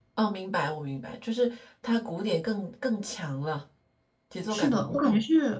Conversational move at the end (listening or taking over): taking over